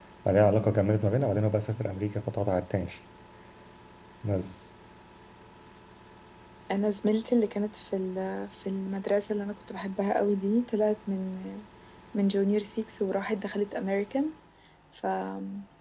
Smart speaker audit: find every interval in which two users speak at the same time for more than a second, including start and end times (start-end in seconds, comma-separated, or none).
none